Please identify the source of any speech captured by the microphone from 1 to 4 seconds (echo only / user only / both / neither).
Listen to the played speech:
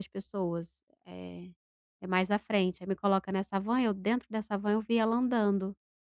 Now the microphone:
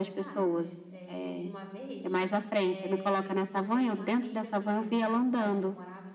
both